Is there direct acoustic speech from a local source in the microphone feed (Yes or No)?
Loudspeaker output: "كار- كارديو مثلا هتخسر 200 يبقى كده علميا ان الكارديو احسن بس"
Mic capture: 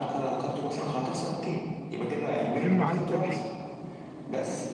Yes